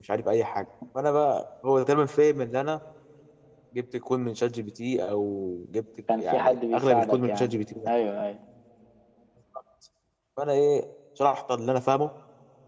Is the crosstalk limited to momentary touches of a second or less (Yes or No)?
No